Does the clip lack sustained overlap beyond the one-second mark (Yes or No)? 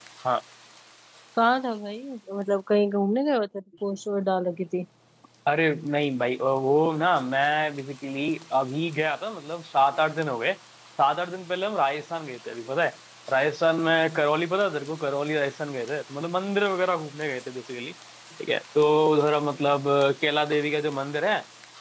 Yes